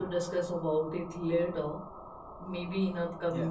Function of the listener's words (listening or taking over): listening